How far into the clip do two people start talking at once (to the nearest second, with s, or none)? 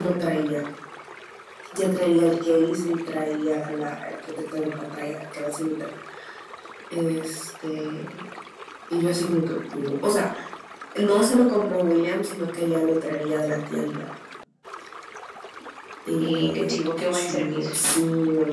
16 s